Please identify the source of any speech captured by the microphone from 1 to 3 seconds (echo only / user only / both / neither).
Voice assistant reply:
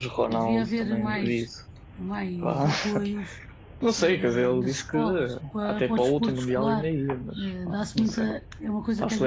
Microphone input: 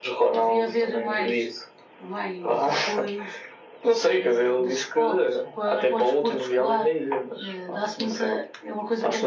echo only